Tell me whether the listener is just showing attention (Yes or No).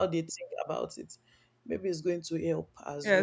No